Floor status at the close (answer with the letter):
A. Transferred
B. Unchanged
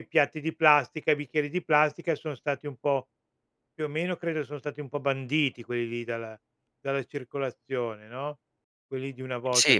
A